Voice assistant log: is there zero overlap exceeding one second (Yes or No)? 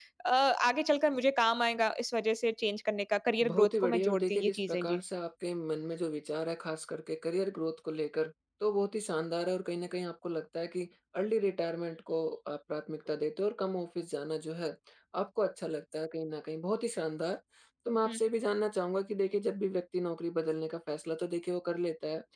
No